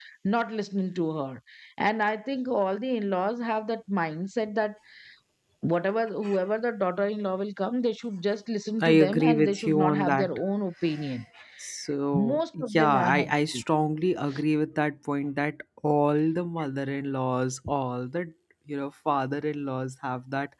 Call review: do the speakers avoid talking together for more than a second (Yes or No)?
No